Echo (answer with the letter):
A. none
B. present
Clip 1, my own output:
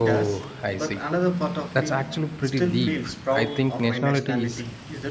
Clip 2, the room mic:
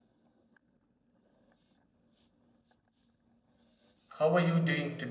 A